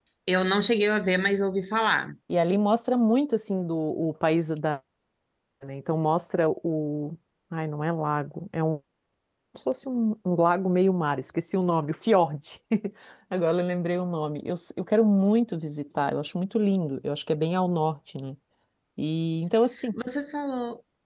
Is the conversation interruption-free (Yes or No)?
Yes